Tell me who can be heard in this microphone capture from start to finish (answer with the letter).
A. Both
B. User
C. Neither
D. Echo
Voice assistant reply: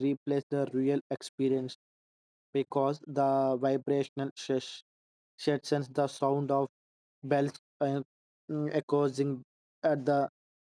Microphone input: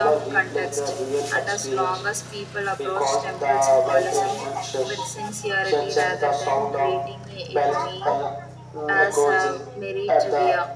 A